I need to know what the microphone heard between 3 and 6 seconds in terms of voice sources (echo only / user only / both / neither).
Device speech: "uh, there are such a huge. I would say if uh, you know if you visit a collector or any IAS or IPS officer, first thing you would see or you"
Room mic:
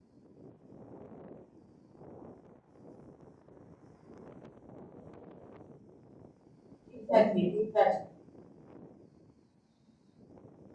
neither